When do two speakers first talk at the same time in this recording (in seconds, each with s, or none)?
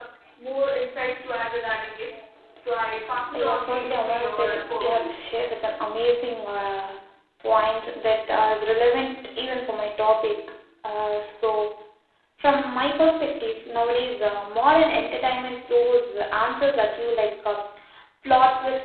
3.3 s